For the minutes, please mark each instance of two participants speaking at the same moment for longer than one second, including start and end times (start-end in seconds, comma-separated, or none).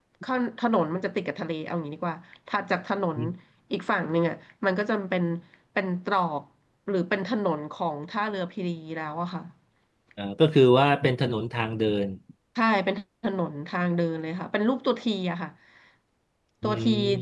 none